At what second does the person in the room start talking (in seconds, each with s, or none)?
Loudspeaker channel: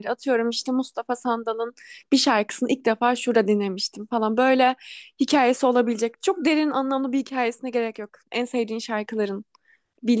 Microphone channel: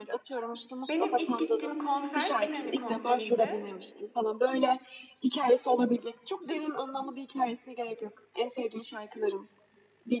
0.9 s